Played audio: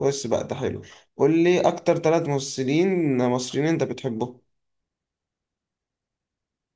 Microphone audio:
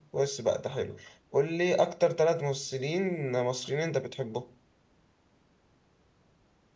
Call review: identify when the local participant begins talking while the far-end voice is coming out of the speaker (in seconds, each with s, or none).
none